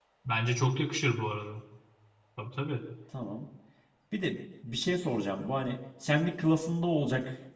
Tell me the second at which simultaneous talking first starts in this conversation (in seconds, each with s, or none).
none